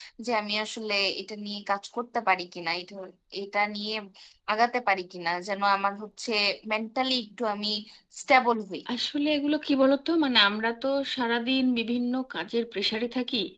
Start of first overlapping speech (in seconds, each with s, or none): none